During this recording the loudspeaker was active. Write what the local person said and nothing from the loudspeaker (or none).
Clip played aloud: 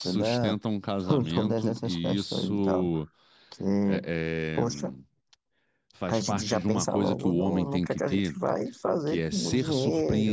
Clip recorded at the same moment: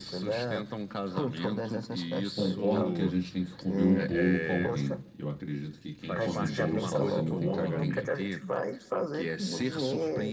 concordo que a gente tem que comer o bolo com alguém. Eu acredito que quem come o bolo sozinho tem caganeira.